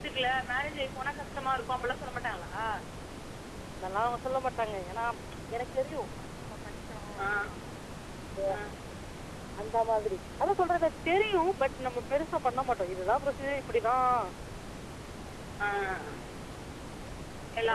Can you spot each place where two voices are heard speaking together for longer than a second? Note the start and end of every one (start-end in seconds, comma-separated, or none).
none